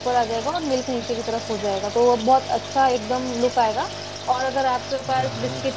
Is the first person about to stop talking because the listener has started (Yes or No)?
No